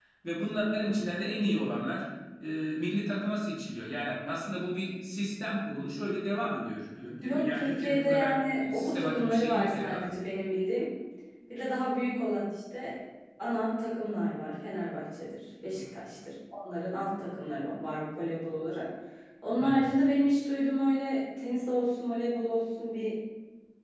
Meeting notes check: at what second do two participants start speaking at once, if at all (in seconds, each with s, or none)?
7.2 s